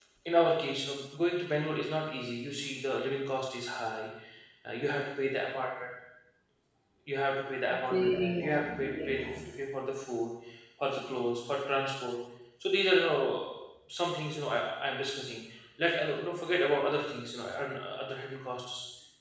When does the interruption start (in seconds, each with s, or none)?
7.9 s